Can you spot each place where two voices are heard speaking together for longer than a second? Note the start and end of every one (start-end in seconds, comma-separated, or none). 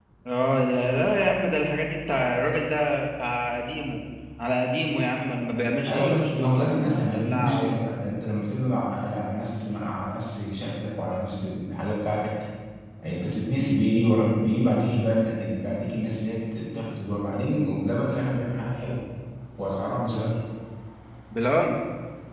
5.9-7.9